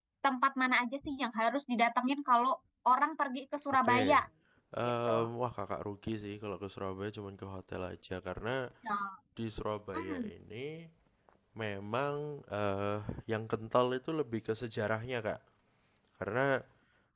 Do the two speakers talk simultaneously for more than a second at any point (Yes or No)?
No